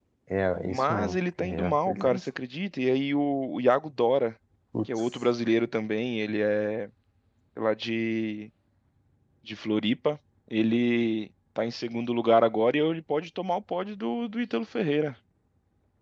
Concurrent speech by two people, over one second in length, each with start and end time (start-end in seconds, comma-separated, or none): 0.7-2.2